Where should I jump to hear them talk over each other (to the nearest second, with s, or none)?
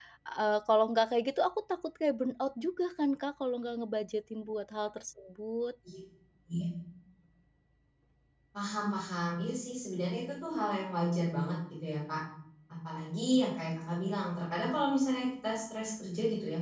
none